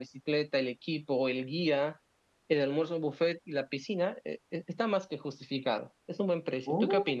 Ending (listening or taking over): taking over